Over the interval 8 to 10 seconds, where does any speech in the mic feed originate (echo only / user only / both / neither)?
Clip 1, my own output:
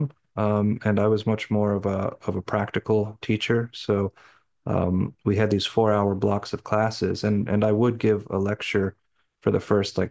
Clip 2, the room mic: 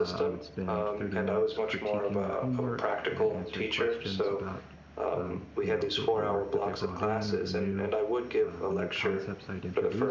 both